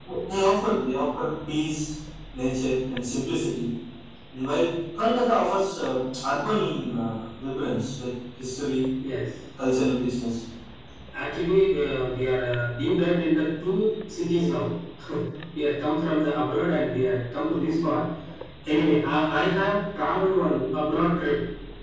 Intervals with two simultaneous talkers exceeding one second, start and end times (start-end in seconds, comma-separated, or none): none